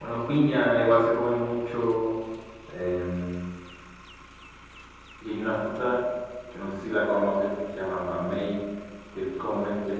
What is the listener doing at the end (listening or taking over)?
listening